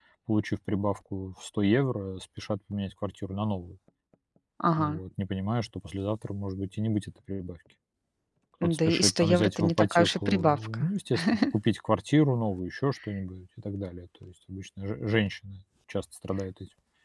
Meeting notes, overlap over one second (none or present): present